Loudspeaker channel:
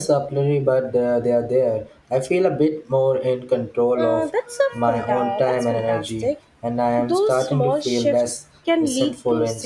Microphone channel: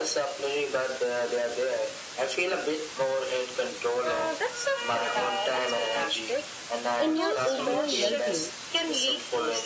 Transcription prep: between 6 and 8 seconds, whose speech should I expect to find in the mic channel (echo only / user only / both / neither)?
both